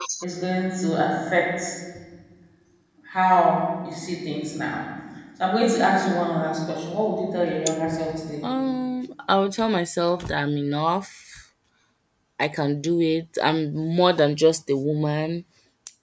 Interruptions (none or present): none